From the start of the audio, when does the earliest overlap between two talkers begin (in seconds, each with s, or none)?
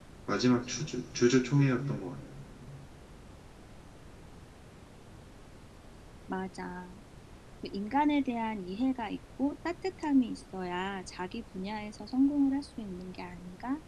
none